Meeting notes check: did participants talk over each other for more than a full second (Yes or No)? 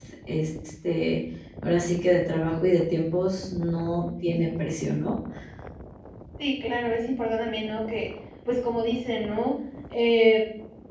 No